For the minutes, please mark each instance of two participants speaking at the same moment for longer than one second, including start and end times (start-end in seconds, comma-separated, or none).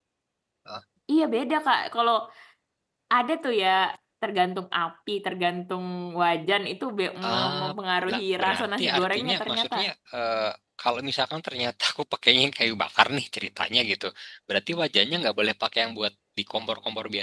8.1-9.8